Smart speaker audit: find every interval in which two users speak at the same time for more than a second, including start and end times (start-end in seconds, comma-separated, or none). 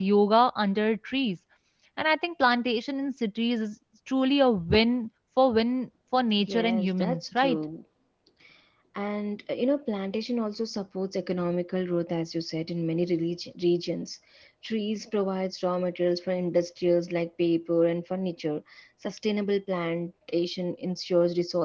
6.4-7.6